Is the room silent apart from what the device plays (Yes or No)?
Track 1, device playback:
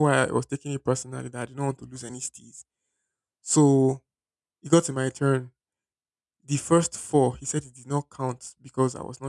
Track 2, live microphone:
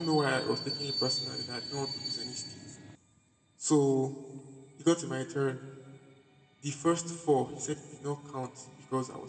Yes